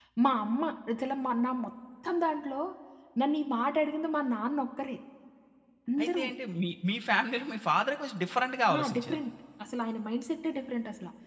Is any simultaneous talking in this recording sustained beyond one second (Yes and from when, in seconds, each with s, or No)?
No